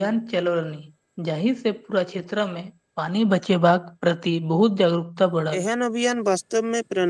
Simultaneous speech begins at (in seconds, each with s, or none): none